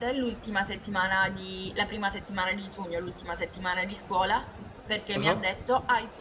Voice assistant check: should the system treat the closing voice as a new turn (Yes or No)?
No